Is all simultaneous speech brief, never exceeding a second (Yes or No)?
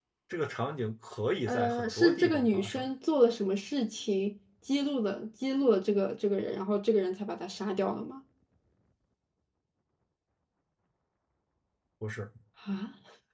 No